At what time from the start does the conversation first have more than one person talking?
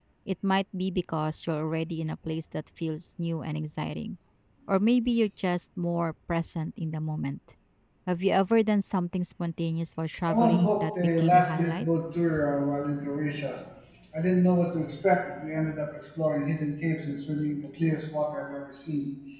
10.3 s

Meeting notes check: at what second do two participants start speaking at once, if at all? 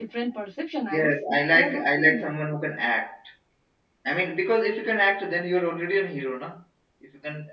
0.9 s

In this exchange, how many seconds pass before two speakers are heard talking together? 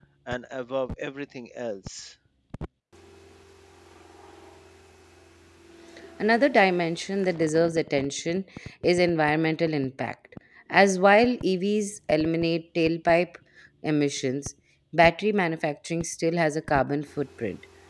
none

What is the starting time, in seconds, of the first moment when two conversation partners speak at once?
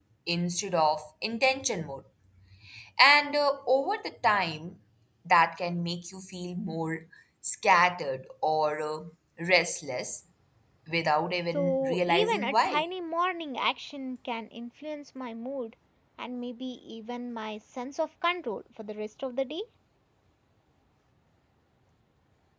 11.5 s

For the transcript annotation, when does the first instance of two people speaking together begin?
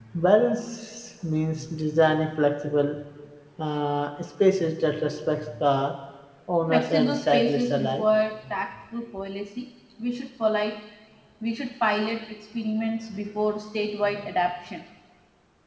6.7 s

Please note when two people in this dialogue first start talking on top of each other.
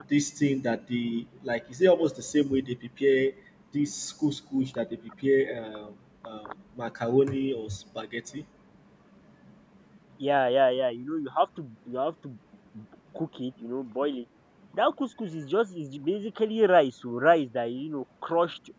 none

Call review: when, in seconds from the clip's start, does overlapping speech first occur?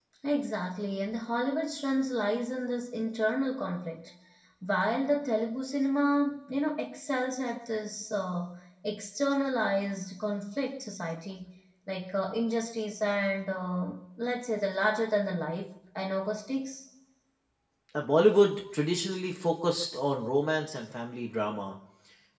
none

